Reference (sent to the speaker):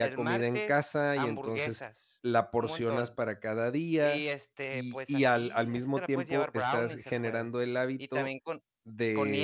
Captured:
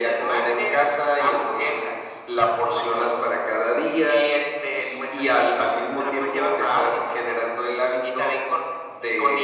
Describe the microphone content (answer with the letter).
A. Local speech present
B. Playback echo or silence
B